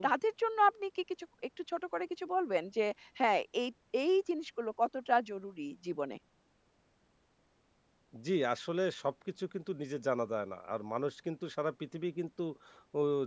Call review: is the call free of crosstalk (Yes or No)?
Yes